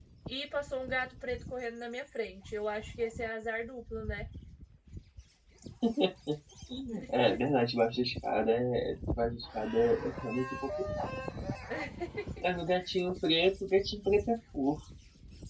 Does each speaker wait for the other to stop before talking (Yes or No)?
Yes